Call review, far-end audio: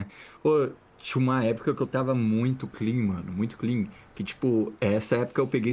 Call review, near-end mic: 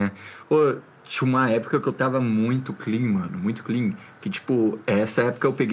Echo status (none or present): present